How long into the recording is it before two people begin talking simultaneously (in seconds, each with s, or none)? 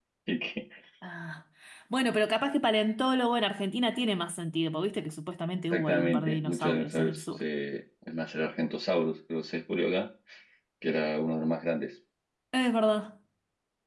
5.7 s